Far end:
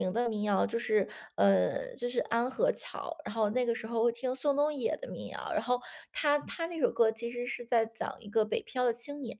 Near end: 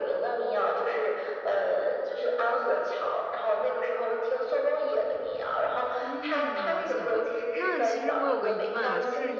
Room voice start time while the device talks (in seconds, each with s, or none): 6.0 s